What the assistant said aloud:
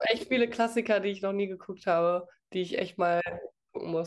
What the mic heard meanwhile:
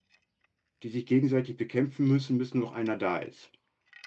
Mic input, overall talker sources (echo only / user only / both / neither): user only